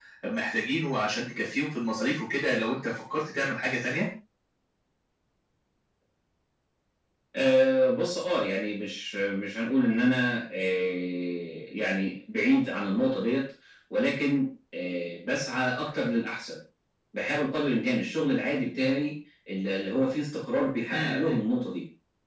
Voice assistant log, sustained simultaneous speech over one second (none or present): none